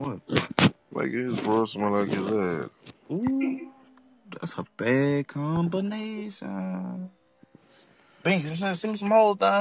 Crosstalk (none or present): none